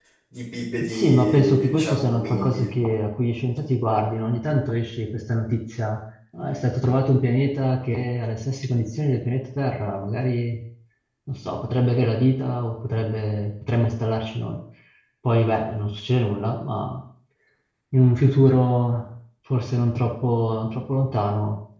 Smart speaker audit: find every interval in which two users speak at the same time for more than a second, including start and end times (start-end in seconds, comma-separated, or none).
0.8-2.7